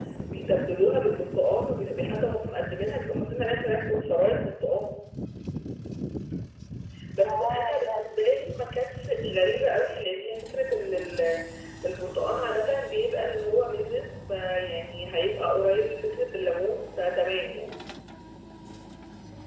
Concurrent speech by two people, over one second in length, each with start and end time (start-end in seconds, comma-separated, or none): 7.2-8.6